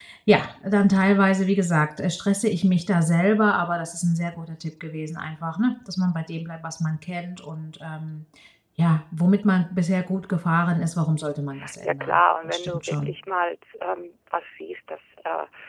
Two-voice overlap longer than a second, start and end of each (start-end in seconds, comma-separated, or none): 11.8-13.1